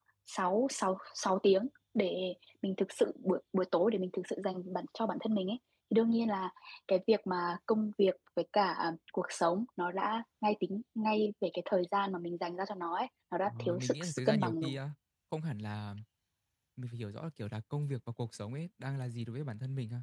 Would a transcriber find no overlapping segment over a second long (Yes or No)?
No